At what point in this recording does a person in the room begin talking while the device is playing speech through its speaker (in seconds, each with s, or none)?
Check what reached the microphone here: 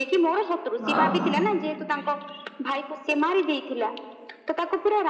0.9 s